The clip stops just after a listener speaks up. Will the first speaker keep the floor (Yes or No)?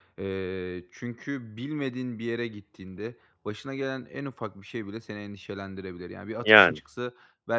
Yes